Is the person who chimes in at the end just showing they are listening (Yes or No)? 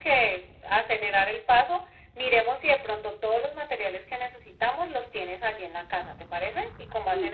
No